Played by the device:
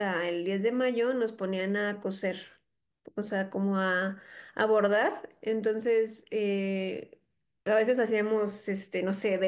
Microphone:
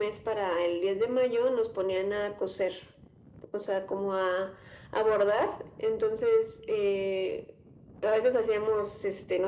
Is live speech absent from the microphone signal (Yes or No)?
Yes